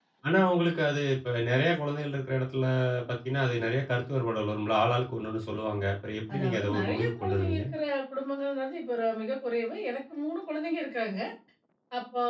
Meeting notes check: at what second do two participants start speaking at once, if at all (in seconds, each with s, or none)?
6.3 s